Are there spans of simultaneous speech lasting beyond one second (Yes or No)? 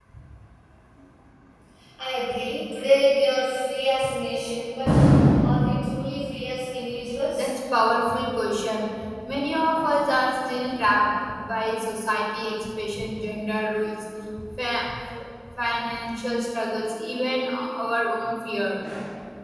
No